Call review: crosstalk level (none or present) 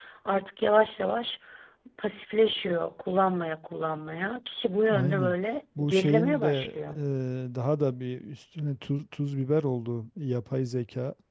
present